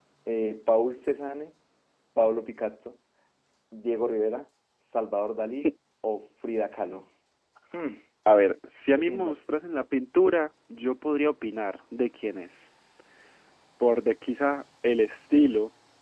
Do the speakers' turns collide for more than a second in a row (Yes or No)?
No